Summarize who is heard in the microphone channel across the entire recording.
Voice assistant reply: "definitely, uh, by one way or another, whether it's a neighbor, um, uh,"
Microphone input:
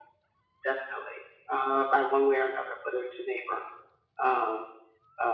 echo only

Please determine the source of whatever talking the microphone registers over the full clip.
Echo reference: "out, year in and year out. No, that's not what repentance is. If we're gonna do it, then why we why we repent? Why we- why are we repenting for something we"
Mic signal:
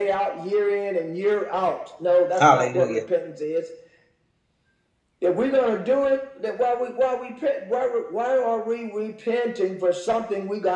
both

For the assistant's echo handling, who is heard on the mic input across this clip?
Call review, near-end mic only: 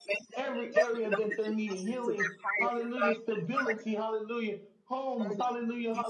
both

